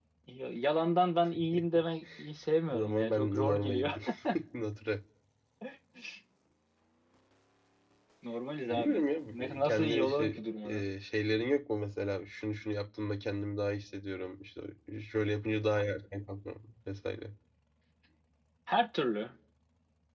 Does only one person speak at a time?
No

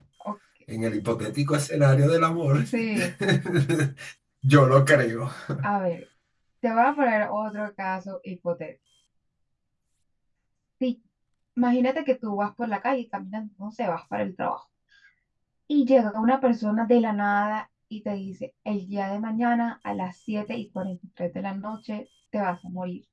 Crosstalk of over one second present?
No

